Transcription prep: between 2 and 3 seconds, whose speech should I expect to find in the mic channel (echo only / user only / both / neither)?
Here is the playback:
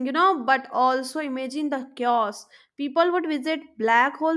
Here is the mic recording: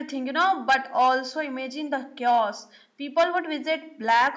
echo only